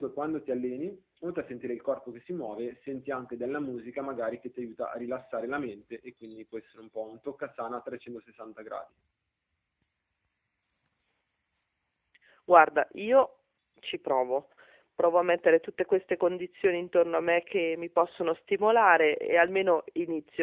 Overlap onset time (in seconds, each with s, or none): none